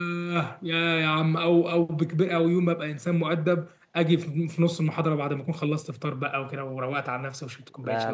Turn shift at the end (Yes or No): Yes